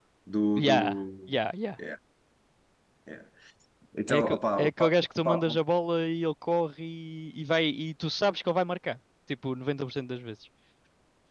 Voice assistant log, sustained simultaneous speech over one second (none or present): present